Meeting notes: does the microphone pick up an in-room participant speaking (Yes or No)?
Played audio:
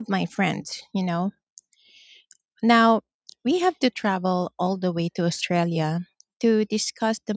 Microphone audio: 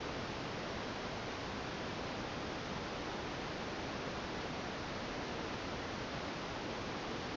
No